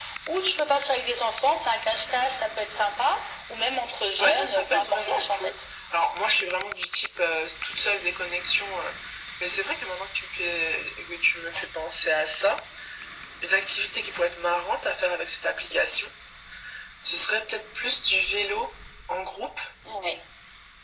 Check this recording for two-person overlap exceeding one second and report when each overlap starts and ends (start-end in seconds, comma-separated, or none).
4.2-5.6